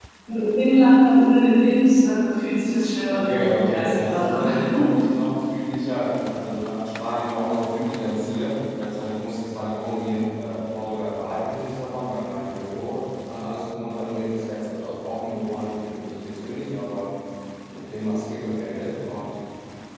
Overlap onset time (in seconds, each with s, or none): 3.1 s